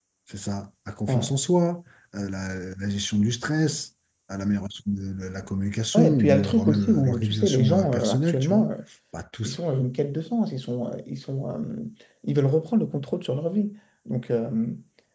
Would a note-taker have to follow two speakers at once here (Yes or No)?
Yes